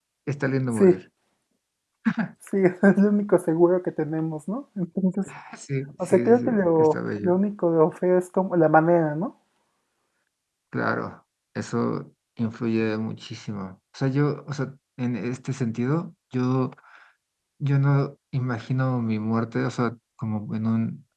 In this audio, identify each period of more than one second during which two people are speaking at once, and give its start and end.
6.1-7.3

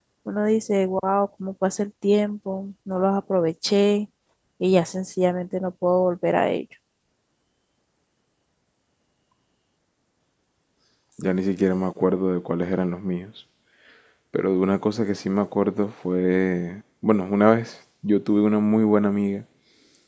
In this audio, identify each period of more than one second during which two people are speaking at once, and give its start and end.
none

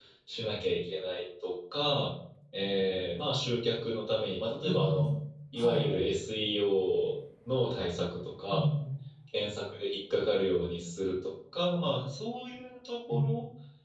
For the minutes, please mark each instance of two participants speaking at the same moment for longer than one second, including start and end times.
none

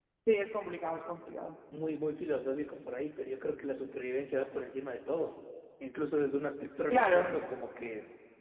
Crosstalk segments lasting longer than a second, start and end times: none

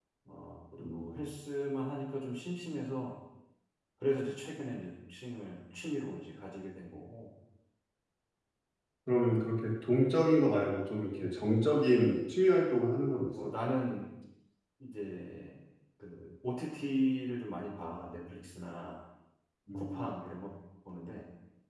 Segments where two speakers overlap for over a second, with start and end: none

